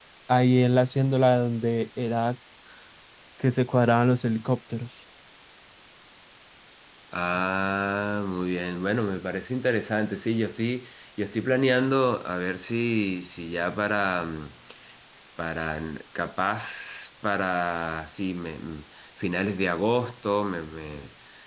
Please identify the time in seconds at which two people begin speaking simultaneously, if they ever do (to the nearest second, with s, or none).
none